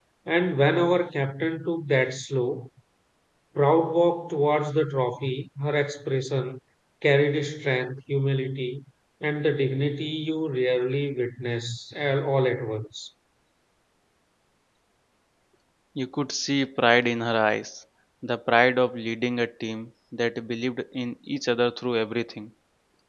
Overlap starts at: none

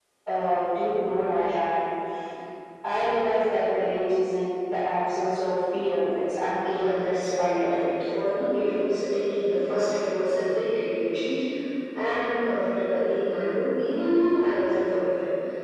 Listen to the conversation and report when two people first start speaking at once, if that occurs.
6.6 s

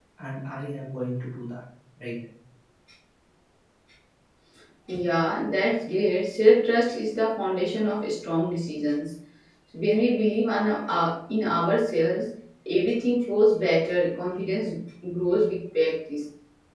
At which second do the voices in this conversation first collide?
none

